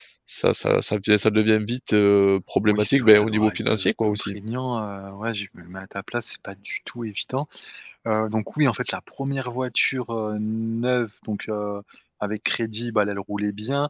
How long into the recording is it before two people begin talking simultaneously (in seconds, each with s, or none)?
2.7 s